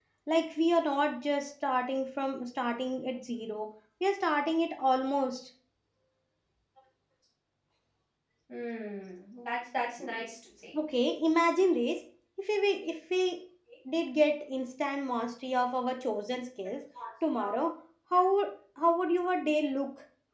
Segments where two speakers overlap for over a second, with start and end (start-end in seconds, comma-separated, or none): none